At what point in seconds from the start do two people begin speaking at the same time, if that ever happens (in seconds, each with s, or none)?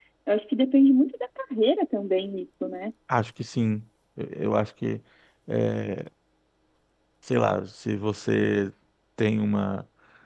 none